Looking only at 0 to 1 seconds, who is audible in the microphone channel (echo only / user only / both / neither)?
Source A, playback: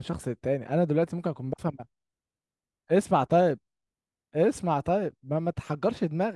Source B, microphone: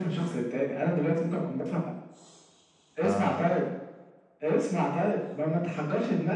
echo only